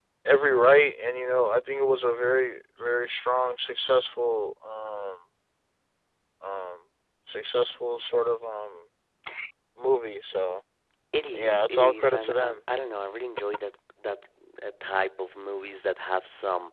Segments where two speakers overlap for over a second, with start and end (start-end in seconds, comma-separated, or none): 11.3-12.6